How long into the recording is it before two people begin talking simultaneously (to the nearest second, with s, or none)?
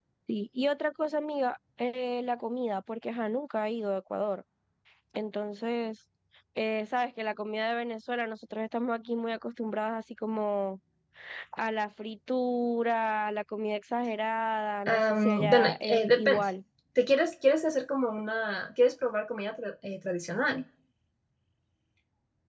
15 s